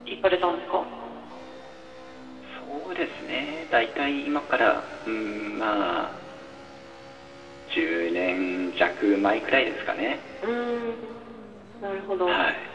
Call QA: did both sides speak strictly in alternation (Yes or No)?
Yes